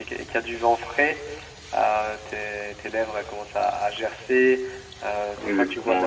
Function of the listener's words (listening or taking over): listening